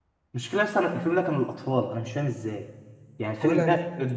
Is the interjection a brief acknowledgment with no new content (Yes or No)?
Yes